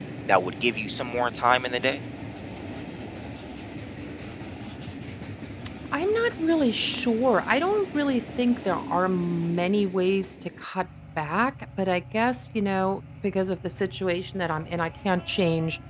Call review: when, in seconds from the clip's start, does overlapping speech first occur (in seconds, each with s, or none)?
none